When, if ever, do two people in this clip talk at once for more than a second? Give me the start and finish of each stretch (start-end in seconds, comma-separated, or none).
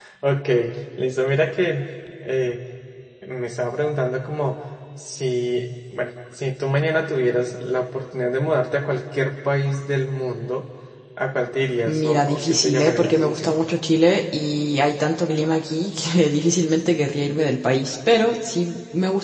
11.9-13.6